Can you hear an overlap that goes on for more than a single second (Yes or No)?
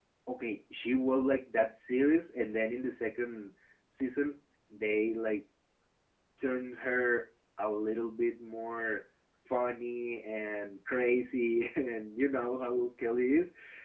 No